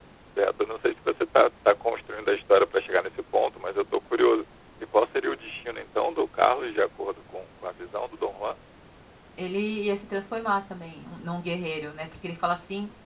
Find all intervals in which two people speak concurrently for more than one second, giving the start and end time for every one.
none

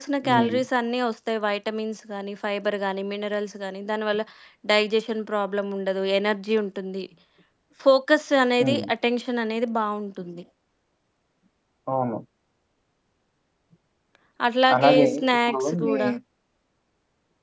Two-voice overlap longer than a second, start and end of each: 14.8-16.0

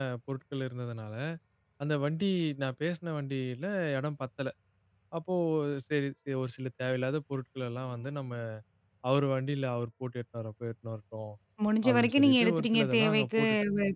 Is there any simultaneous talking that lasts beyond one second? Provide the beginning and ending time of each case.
11.9-13.4

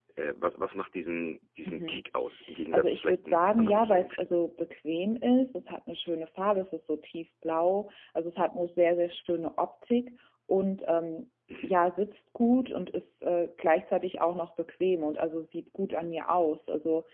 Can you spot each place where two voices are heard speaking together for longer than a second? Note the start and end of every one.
2.7-4.3

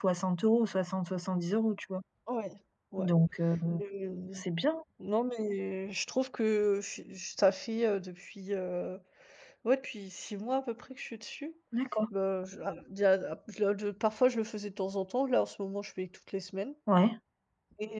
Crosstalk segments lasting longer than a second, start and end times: none

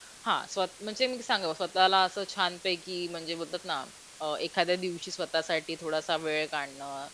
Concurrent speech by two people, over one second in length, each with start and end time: none

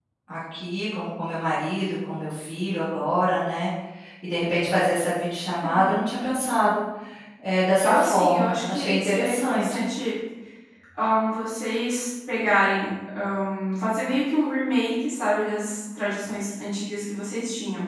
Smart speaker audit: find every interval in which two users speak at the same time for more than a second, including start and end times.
7.8-9.9

